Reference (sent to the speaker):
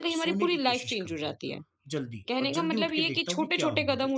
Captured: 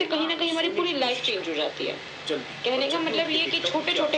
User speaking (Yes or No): No